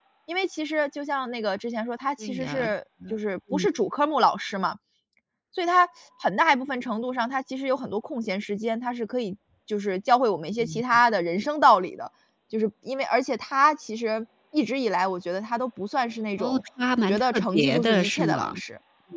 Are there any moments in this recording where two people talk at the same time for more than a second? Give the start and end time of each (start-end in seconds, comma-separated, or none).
17.1-18.5